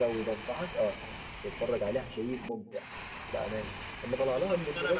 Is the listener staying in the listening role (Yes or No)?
No